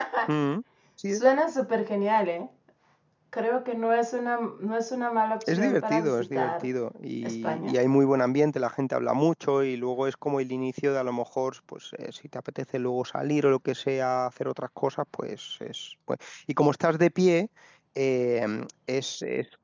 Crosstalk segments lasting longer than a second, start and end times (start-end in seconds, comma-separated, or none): 5.5-6.7